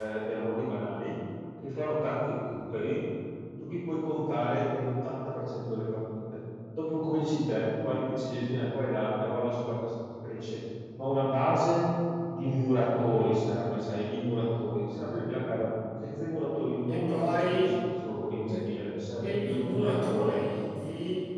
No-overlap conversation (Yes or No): No